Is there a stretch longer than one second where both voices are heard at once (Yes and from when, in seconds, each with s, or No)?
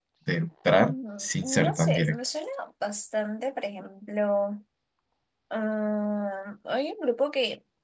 Yes, from 0.8 s